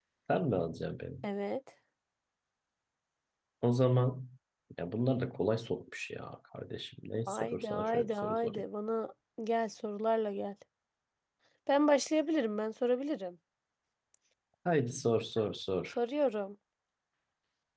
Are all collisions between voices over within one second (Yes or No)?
No